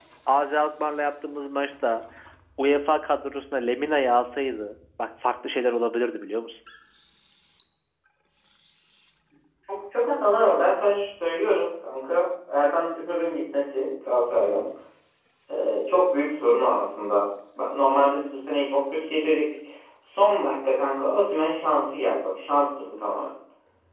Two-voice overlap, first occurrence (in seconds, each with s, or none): none